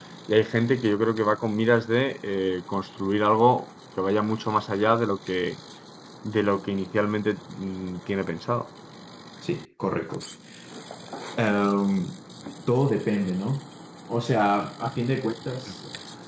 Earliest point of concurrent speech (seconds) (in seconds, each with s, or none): none